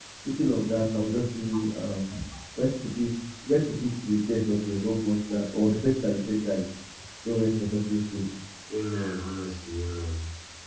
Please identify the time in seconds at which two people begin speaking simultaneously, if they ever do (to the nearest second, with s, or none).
none